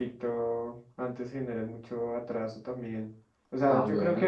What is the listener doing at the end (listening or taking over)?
listening